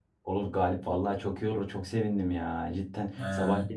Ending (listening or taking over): listening